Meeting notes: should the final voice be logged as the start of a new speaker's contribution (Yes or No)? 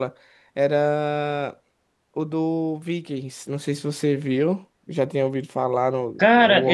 Yes